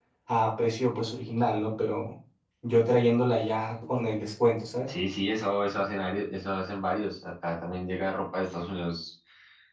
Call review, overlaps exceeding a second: none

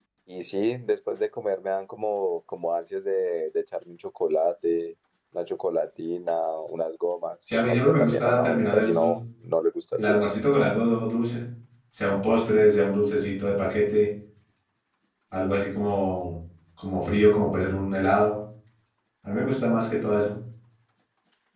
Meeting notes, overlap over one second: present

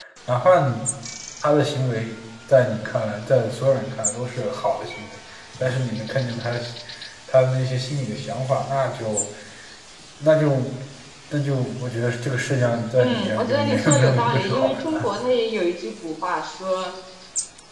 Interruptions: present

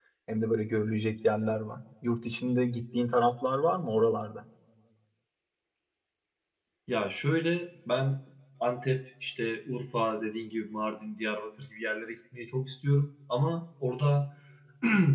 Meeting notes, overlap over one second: none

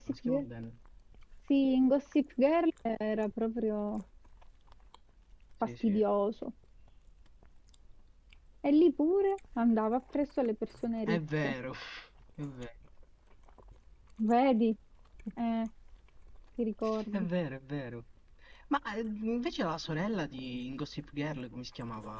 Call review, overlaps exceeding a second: none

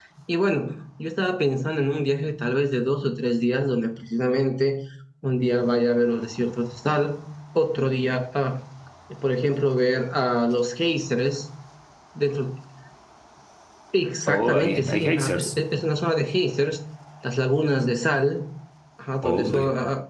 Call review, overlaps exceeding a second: present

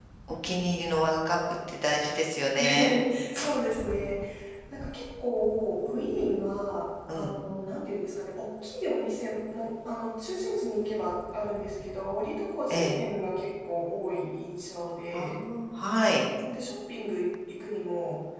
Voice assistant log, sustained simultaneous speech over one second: none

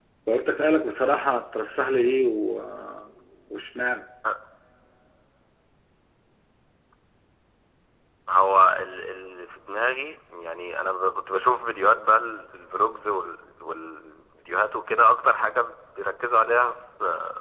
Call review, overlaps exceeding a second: none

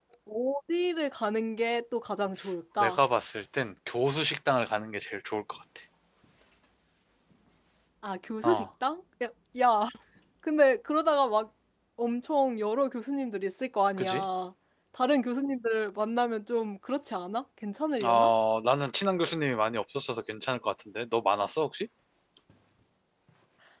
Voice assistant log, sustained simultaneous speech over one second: none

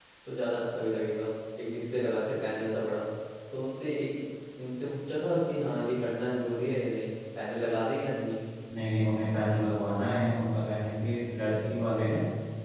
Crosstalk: none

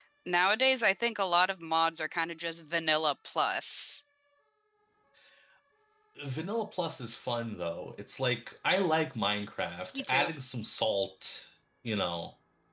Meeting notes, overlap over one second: none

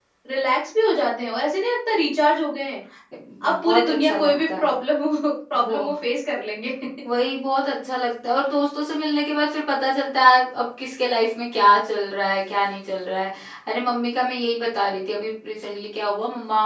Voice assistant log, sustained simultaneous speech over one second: present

